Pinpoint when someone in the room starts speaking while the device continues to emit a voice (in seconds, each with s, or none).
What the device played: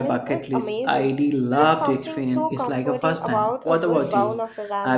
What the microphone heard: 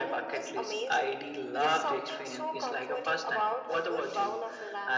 none